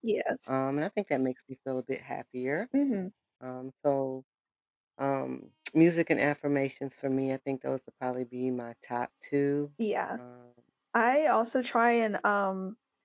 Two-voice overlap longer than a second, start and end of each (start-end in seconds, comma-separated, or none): none